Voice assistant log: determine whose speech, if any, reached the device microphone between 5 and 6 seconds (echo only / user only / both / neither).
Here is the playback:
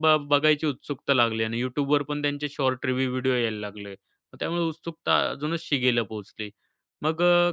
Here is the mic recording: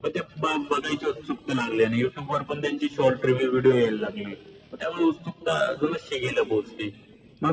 echo only